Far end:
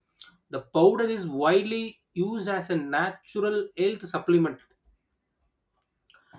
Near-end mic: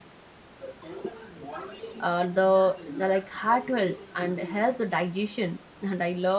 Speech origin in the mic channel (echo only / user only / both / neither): both